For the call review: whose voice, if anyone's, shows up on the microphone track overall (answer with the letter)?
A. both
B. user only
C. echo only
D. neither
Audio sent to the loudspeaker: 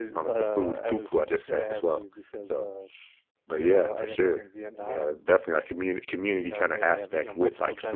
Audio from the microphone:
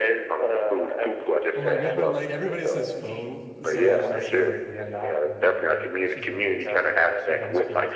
A